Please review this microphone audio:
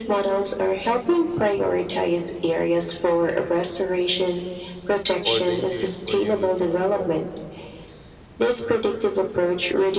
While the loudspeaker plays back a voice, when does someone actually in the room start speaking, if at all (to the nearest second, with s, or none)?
5 s